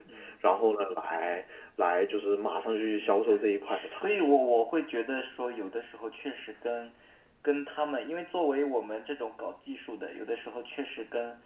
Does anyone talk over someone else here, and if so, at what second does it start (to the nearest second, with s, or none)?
3 s